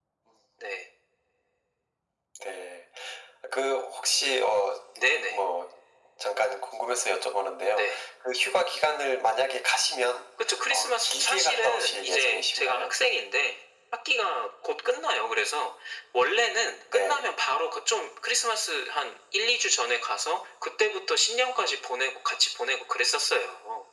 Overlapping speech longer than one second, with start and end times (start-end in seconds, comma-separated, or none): 10.7-12.9